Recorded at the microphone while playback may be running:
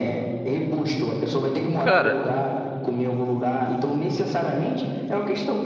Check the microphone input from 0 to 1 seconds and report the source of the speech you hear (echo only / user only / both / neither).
echo only